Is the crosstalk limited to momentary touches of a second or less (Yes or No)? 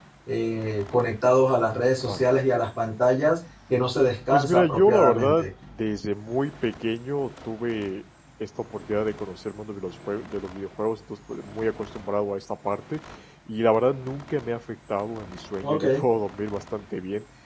No